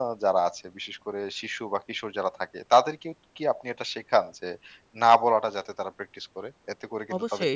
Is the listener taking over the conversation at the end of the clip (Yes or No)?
Yes